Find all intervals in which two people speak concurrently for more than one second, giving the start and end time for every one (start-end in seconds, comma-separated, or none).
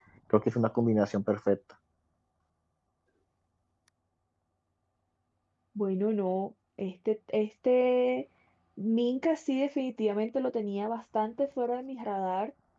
none